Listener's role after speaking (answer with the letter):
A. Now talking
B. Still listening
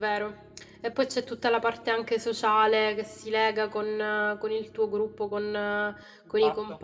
A